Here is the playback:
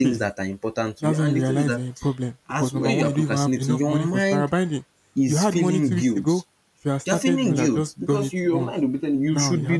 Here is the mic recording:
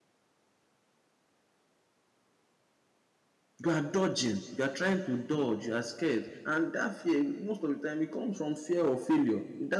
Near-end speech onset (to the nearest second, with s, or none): 4 s